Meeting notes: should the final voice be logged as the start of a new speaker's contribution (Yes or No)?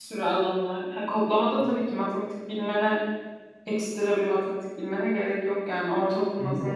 Yes